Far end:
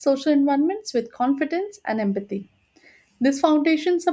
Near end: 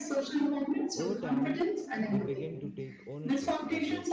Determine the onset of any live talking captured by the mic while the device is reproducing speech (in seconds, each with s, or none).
0.9 s